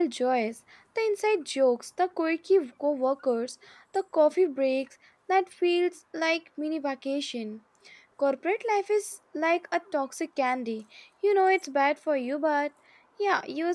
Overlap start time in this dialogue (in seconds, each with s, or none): none